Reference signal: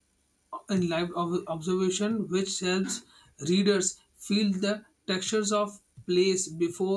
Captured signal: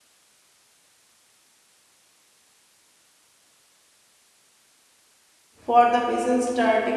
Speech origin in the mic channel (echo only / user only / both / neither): user only